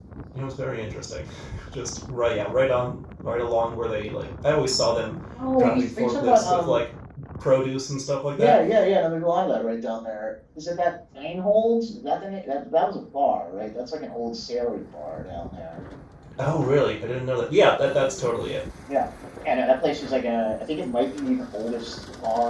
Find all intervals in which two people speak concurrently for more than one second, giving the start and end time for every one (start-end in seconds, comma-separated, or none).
5.6-6.8